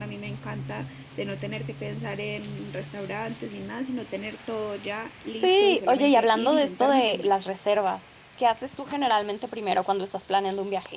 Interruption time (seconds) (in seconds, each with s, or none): 5.4 s